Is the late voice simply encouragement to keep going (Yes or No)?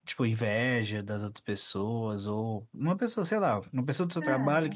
Yes